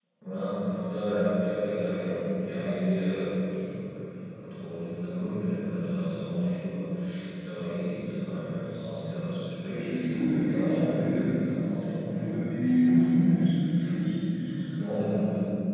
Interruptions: present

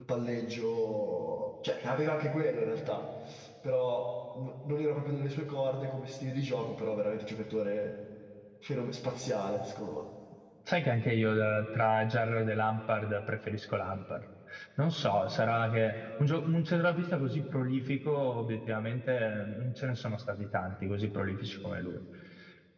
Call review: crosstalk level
none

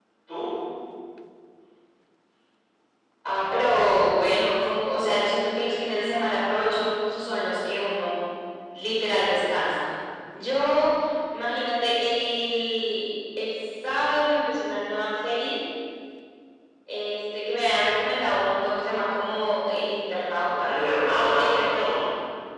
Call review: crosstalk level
present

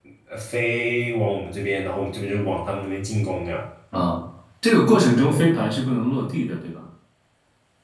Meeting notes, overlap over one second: none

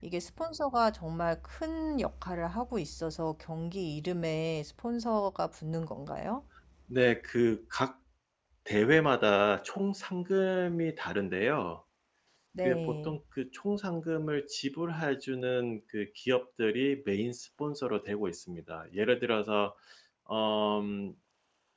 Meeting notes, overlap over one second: none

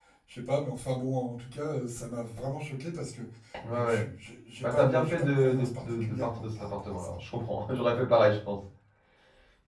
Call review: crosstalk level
present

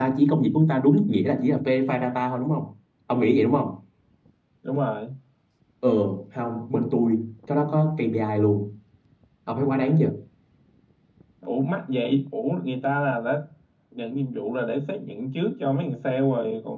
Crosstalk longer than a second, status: none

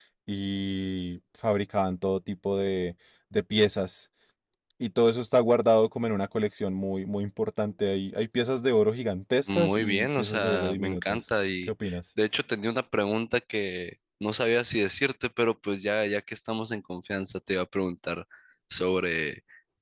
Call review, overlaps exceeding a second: present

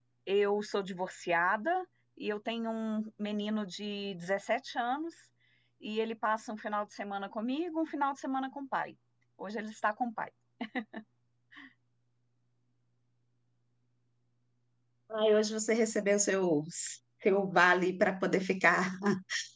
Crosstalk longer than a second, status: none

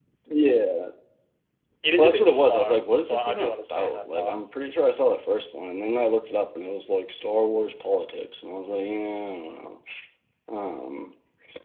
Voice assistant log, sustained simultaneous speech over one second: present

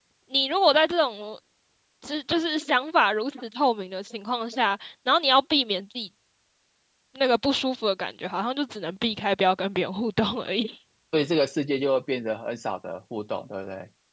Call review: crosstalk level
none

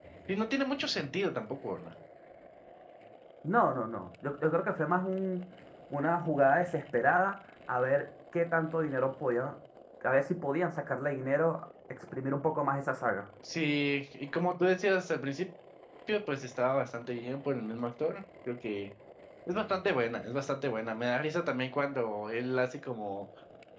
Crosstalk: none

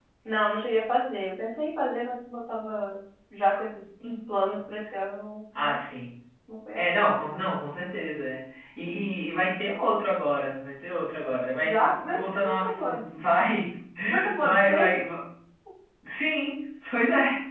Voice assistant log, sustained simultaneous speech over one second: present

